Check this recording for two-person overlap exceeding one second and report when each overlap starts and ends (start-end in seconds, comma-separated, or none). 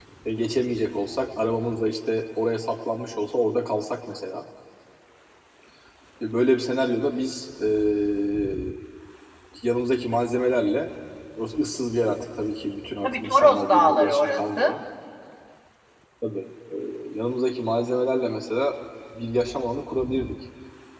13.0-14.7